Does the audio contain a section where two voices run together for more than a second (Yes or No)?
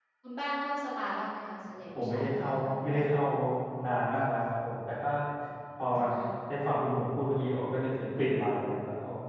Yes